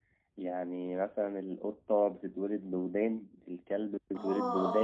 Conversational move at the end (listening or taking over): taking over